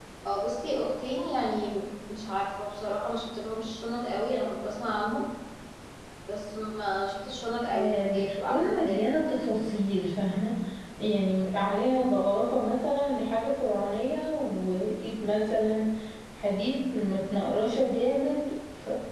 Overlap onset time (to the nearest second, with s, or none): 8 s